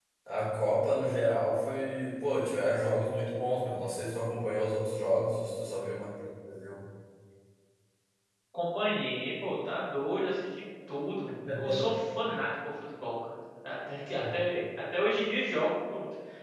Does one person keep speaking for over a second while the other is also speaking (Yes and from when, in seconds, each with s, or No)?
No